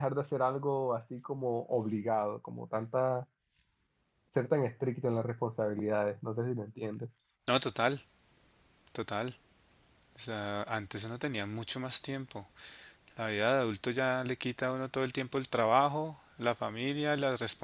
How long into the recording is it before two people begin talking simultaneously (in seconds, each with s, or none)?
none